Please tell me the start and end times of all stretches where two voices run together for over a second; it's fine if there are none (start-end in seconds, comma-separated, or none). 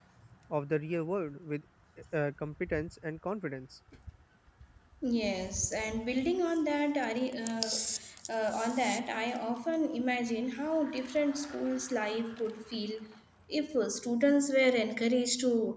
none